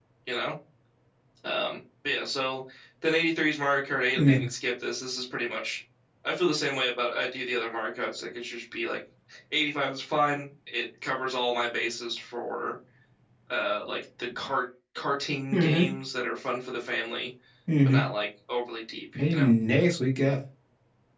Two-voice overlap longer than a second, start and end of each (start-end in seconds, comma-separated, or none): none